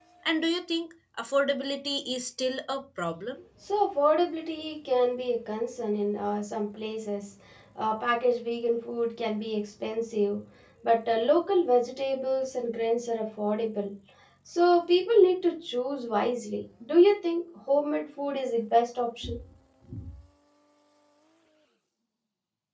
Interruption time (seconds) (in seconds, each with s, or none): none